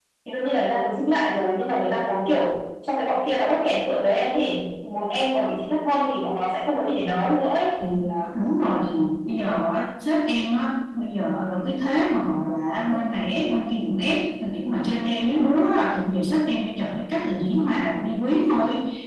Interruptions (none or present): none